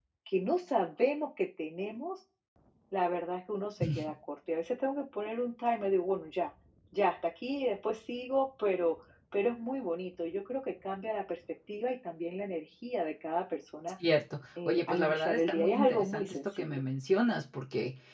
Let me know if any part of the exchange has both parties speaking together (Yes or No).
Yes